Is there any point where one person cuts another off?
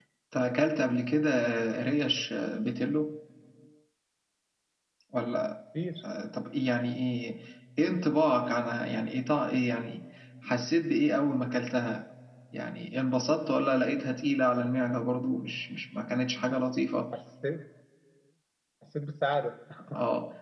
No

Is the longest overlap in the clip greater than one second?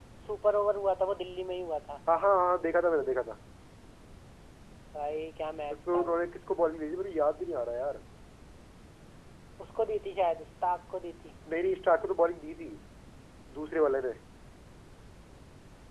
No

